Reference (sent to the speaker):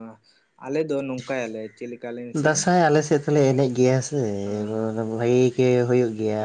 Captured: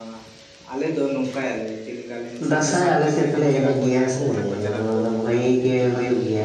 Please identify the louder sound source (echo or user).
echo